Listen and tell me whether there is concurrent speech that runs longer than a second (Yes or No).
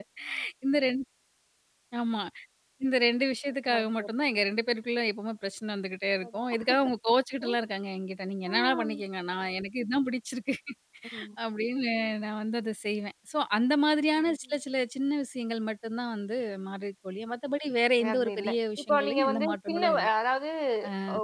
Yes